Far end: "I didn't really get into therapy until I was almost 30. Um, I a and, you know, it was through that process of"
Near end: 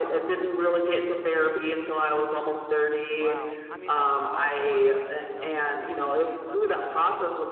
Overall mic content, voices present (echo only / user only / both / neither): both